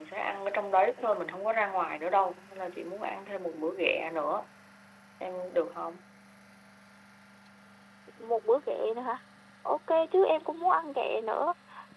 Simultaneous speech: No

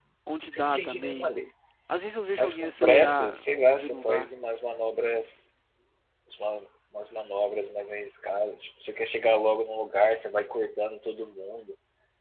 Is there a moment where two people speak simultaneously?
Yes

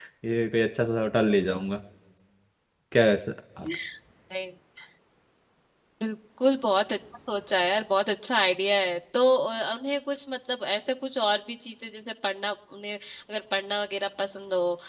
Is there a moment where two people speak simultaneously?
No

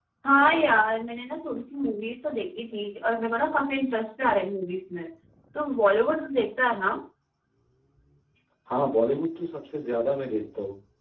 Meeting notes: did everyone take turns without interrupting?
Yes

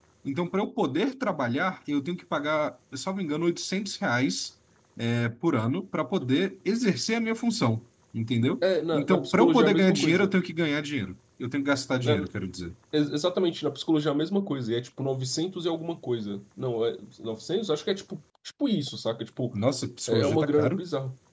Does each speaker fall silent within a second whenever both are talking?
No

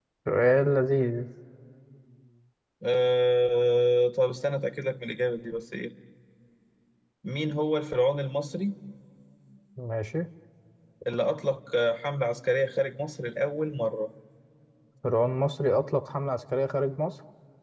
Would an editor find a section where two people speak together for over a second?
No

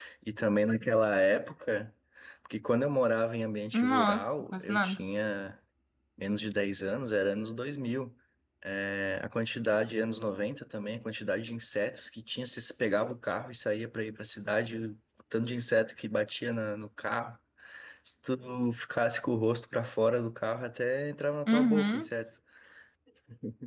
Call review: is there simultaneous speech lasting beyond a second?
Yes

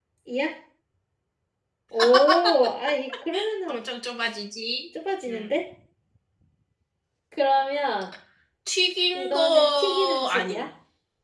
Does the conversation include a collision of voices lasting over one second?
Yes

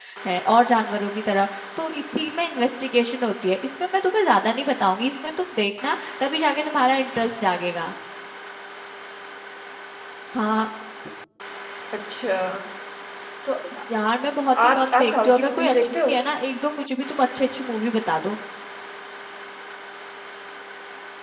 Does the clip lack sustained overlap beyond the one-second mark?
No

